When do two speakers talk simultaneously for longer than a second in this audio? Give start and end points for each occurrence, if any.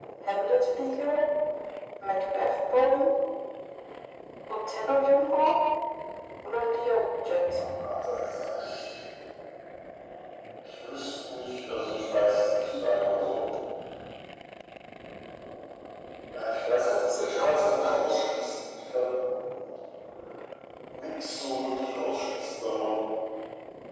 16.8-18.0

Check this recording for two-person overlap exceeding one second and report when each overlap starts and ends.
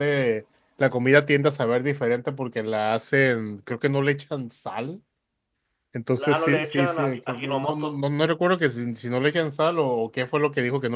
6.2-7.9

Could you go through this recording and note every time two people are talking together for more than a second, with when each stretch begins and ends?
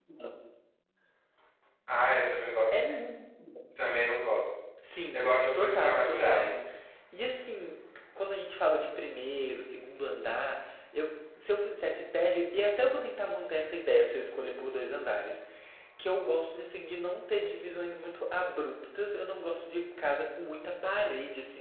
5.1-6.6

